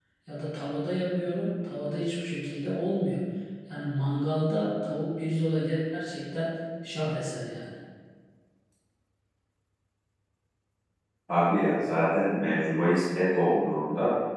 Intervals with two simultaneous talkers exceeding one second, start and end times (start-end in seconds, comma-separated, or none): none